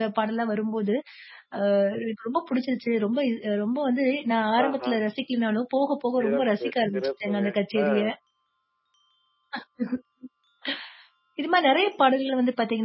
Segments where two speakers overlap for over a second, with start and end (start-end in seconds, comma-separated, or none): 6.2-7.4